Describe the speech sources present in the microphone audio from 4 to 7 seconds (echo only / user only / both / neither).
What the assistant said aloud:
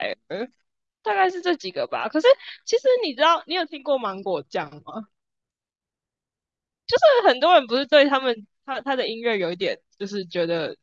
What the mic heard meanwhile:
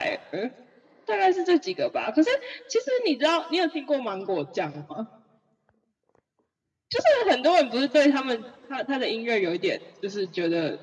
echo only